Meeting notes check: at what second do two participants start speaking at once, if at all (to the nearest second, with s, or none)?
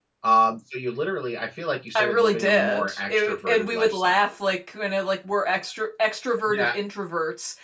2 s